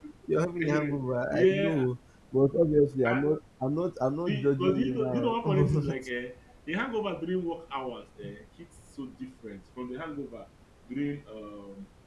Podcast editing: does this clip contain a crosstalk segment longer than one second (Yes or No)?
Yes